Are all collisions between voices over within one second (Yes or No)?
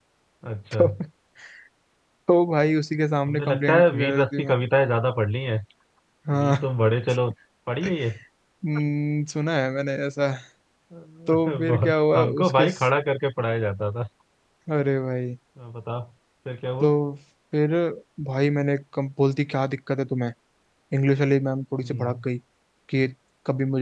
No